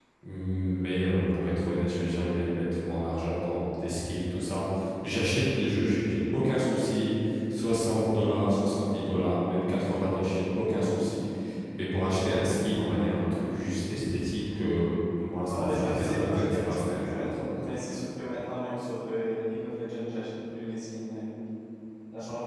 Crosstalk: present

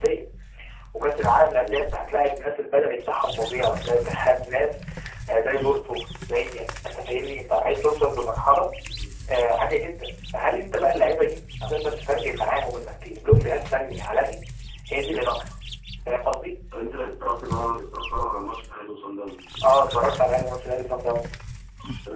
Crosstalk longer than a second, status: none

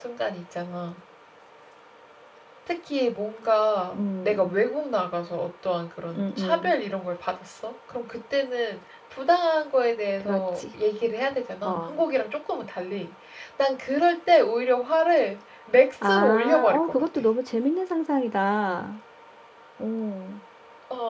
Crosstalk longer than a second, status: present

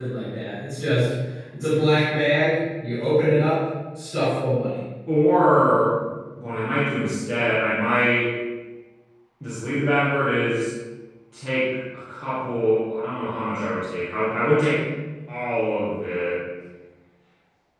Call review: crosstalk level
none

